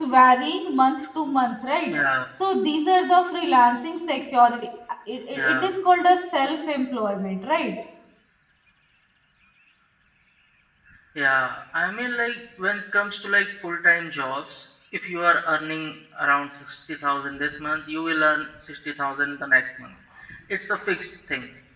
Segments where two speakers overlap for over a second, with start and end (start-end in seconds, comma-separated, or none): none